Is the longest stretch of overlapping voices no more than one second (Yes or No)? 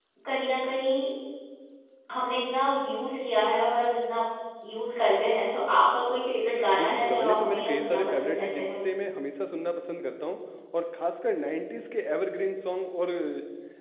No